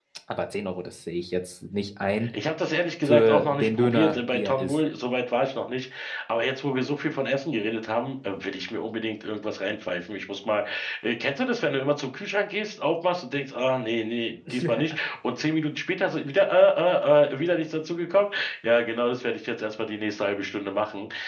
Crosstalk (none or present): present